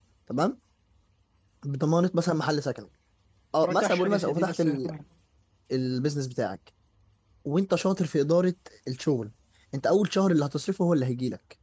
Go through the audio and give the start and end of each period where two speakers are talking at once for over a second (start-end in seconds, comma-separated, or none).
3.6-4.9